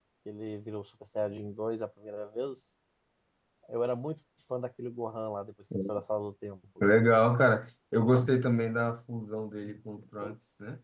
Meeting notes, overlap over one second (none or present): none